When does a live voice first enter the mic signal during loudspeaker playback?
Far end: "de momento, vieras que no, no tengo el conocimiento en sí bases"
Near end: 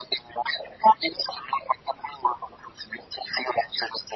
none

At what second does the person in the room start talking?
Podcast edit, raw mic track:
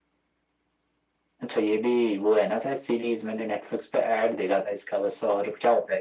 none

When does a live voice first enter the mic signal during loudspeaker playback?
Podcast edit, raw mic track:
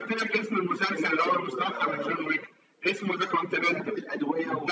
none

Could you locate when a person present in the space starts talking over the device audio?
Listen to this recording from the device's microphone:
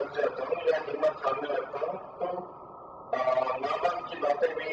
none

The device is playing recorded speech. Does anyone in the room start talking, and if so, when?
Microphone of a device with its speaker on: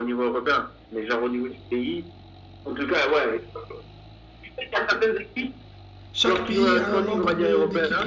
6.1 s

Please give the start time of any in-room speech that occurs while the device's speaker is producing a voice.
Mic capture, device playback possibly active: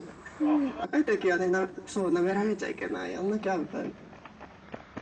none

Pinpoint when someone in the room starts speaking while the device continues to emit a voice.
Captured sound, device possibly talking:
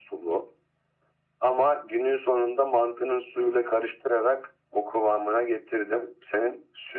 none

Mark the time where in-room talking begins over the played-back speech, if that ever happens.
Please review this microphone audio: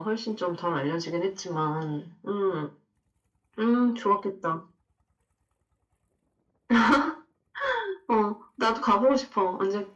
none

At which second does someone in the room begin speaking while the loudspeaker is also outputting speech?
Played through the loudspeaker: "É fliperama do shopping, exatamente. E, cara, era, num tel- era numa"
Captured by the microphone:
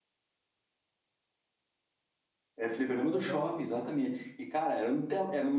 3.1 s

